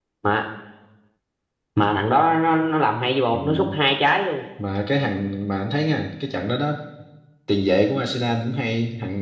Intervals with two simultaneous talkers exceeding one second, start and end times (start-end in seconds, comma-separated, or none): none